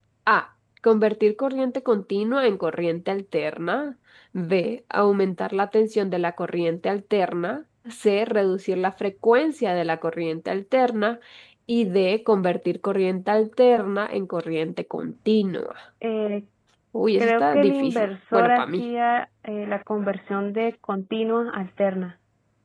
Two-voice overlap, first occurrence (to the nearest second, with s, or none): 17 s